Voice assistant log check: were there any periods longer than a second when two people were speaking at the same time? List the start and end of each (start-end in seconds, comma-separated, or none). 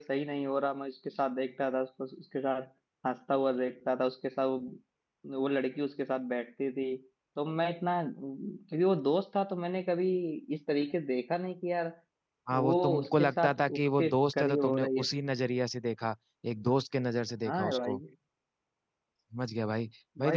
12.5-15.1